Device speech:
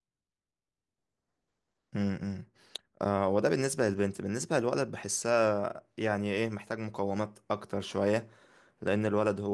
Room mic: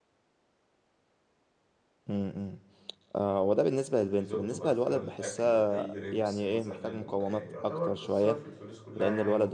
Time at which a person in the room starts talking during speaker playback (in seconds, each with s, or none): 4.2 s